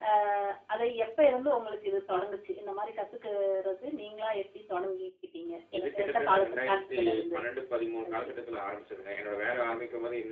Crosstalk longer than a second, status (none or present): present